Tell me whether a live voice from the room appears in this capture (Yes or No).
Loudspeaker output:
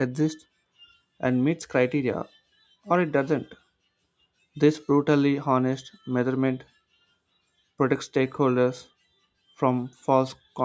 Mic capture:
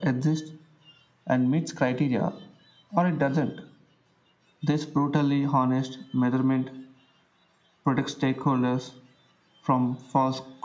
No